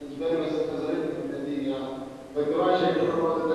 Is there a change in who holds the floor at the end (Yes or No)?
No